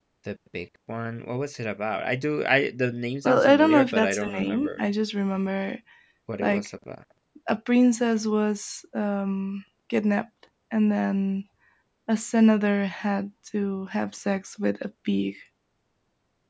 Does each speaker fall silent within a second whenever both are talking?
No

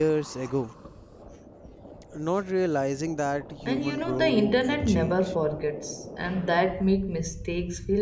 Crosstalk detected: Yes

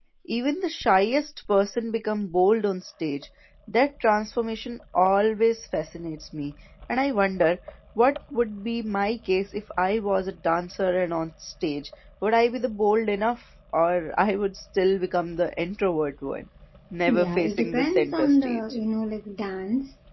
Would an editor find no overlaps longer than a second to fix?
No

